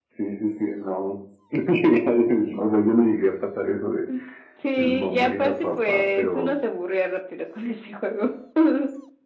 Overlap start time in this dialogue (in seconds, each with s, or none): 4.8 s